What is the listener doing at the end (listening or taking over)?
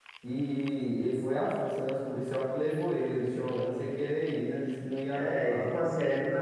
taking over